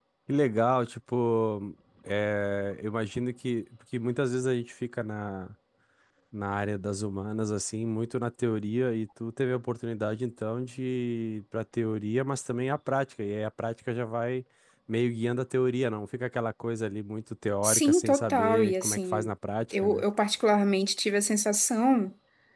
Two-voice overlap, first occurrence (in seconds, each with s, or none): 17.6 s